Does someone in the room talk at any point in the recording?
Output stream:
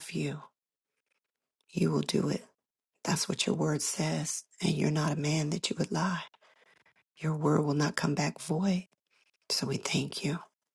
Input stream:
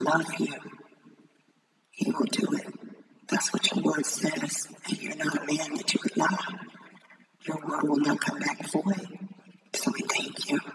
No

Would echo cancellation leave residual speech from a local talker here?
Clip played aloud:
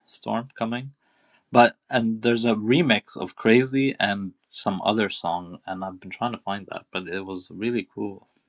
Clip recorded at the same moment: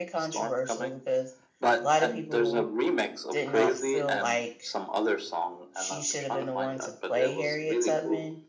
Yes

